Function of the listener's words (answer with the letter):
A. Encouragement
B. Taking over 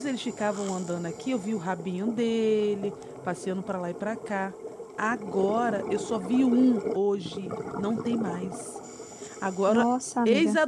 A